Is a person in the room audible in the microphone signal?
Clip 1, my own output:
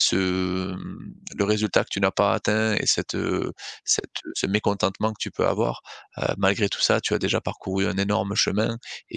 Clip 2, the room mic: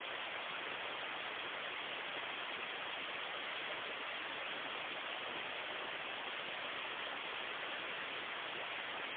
No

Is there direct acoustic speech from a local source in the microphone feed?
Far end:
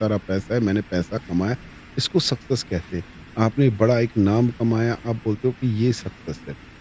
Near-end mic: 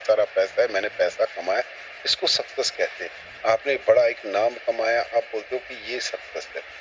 No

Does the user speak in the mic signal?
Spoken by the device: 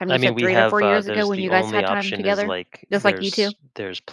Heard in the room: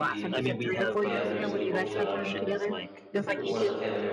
Yes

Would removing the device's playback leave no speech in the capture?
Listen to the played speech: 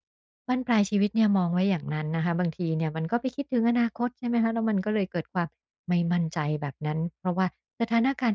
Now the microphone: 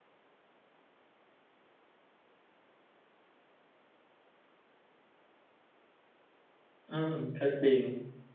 No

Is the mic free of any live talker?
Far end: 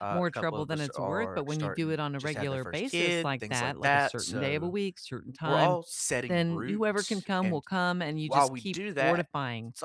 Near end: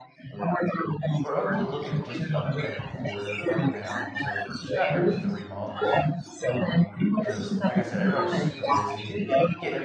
No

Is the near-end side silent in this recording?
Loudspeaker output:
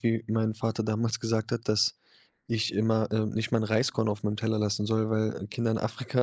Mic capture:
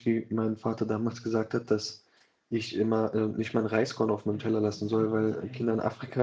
No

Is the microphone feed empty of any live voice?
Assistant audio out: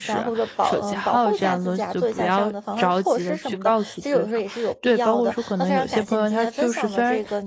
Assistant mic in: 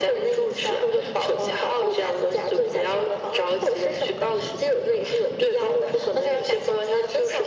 Yes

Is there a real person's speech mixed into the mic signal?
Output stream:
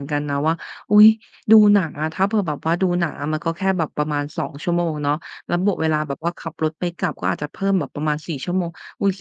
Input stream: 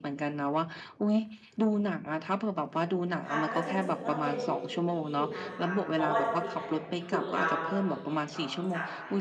Yes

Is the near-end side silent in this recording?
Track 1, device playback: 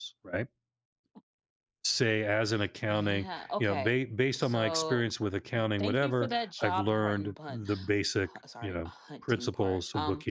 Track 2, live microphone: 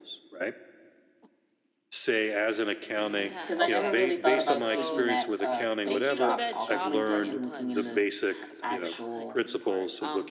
No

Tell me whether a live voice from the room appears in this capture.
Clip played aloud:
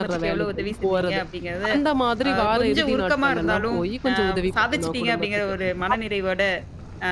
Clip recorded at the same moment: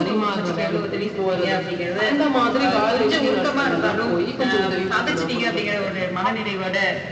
No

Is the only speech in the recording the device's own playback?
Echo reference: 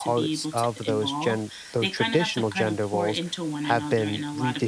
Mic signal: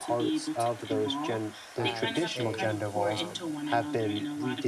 No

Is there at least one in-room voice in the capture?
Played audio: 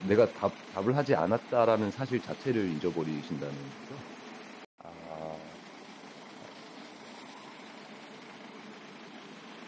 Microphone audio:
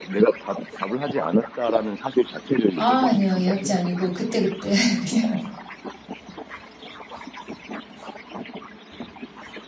Yes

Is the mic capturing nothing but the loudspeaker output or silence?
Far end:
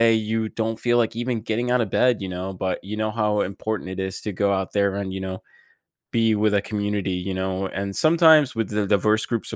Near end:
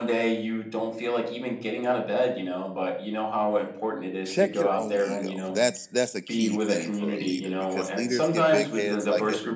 No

